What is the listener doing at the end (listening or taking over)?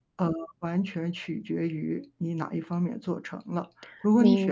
listening